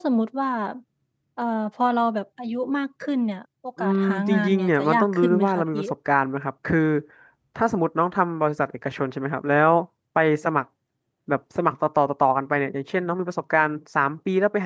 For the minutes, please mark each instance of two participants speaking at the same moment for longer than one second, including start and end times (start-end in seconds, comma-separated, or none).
3.8-5.8